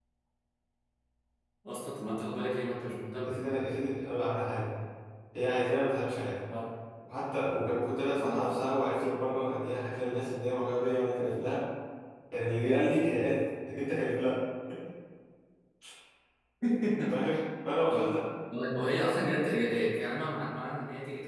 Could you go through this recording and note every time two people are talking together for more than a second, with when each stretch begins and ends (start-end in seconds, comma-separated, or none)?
none